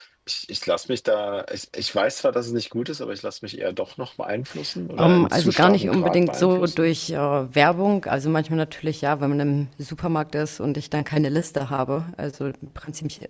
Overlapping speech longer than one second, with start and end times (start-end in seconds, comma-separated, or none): 5.0-6.9